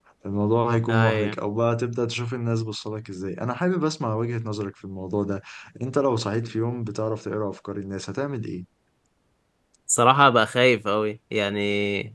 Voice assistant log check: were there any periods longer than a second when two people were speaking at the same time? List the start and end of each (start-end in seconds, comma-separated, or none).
none